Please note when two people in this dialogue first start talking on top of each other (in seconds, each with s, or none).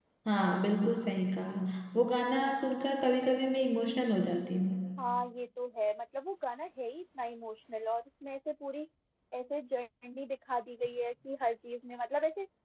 none